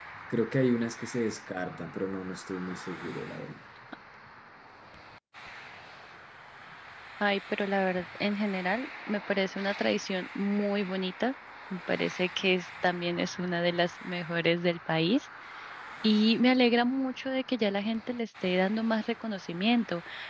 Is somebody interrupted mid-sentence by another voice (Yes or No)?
No